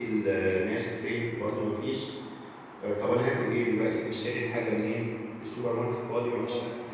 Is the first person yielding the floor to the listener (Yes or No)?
Yes